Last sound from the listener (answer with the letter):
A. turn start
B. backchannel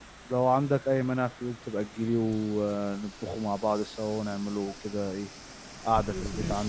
A